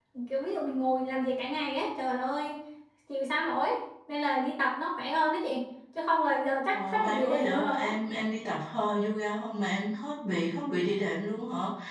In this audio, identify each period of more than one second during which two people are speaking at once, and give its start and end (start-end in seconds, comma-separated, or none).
6.7-7.9